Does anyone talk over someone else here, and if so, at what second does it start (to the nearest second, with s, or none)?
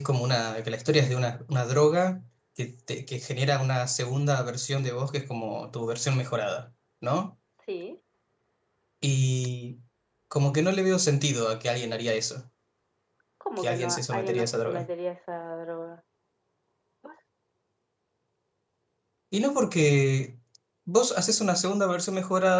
14 s